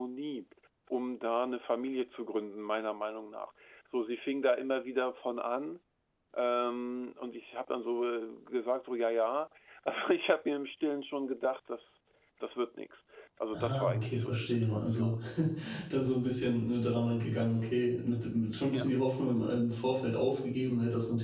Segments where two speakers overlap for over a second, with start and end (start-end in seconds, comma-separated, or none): 13.5-15.1